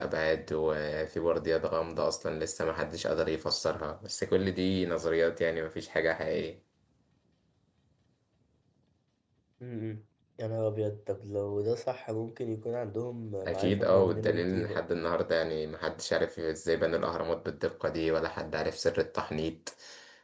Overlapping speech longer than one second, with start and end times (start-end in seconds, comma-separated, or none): 13.4-14.8